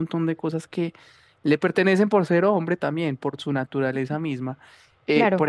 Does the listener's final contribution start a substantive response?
No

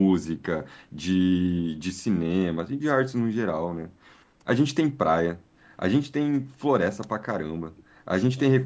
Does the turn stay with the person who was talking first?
Yes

